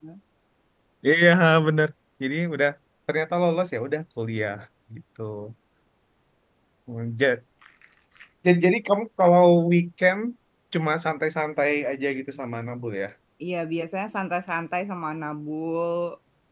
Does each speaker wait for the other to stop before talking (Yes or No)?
Yes